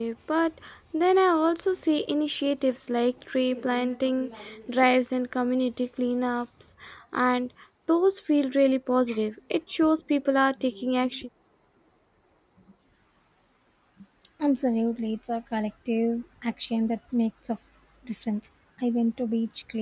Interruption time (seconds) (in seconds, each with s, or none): none